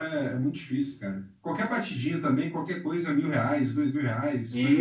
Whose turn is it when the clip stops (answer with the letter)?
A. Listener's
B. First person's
A